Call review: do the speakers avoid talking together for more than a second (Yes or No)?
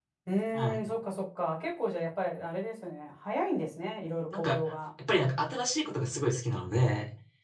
Yes